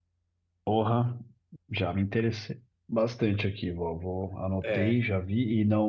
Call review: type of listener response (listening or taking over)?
listening